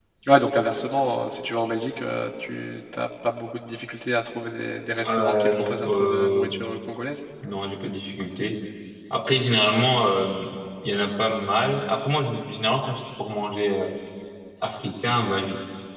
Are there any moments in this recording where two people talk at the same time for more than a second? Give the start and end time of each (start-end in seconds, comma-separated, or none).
5.0-6.5